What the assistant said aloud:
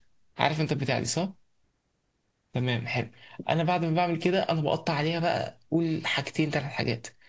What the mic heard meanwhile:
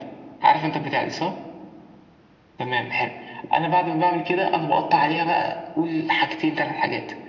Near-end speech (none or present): none